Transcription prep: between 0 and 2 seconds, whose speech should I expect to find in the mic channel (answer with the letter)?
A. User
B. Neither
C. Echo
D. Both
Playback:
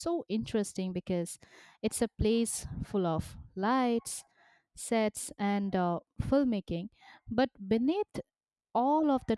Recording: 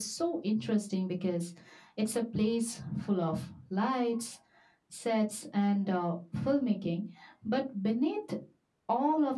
C